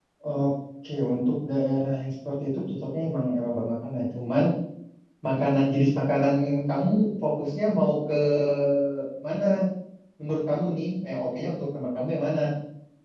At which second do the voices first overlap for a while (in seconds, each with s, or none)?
none